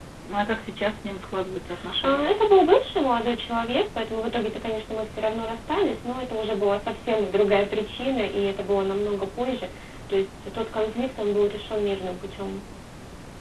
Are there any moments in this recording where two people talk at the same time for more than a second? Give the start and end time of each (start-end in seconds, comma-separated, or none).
none